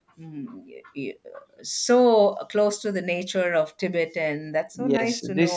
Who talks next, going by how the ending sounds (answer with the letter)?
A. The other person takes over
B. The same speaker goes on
A